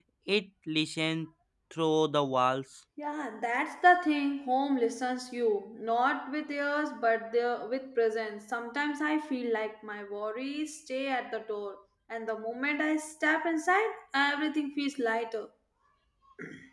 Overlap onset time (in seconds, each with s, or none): none